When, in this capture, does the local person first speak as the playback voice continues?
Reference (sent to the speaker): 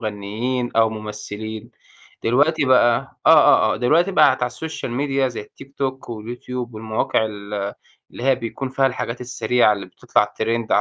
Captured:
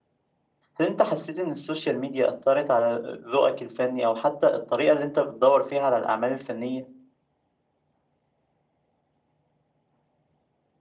0.8 s

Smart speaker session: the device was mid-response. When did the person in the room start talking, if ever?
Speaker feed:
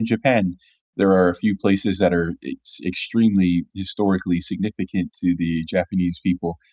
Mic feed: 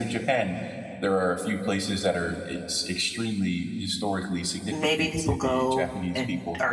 4.7 s

